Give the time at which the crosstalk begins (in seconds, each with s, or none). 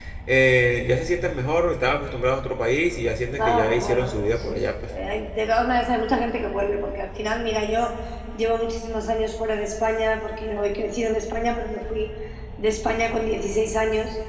3.4 s